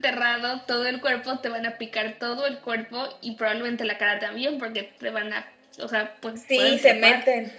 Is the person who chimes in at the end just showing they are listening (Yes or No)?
No